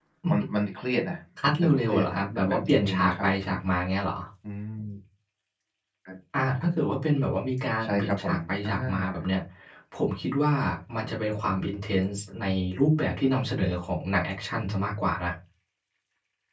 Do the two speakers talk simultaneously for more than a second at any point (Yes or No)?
Yes